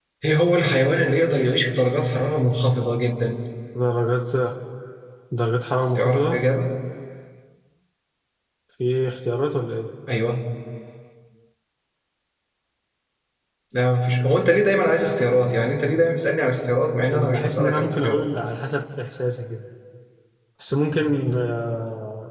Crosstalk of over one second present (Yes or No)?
Yes